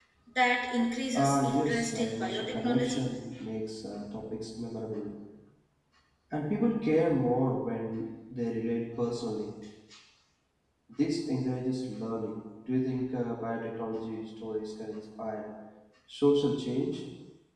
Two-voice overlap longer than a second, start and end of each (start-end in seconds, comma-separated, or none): 1.1-3.1